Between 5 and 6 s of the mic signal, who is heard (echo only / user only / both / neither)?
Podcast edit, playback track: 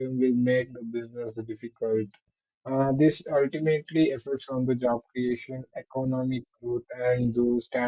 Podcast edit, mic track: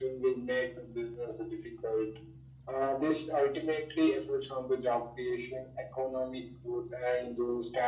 echo only